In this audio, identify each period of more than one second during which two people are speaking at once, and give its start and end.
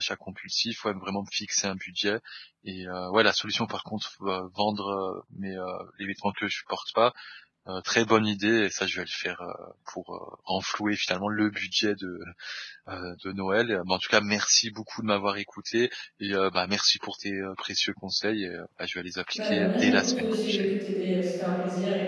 19.4-20.7

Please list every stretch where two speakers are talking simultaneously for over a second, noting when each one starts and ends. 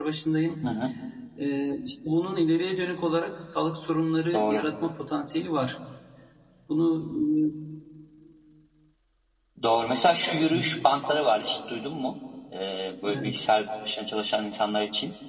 none

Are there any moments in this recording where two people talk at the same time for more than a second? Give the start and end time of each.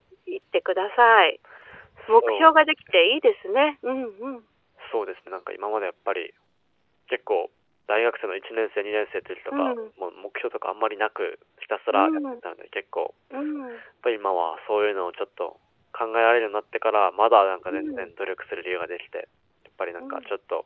none

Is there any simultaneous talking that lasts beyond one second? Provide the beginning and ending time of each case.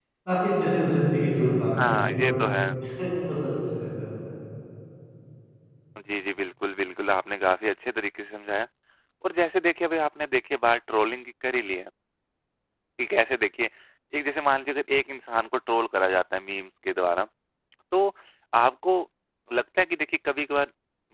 none

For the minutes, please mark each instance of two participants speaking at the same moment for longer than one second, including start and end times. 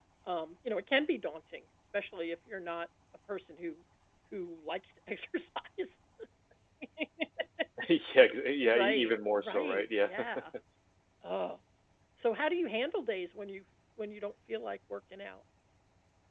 8.6-10.1

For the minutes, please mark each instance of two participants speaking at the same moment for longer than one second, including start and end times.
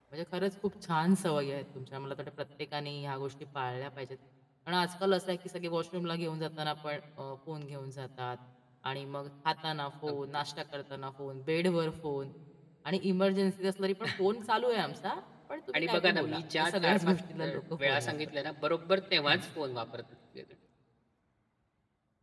15.7-18.2

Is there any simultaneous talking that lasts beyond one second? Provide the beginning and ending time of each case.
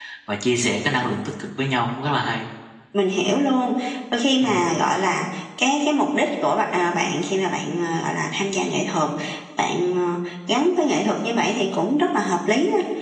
none

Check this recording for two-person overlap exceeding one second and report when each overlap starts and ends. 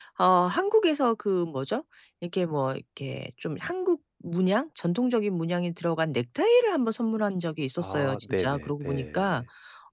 7.8-9.4

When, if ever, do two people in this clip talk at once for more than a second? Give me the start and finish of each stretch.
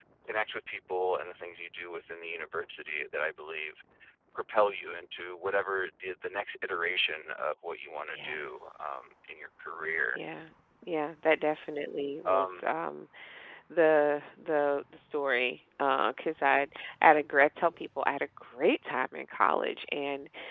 none

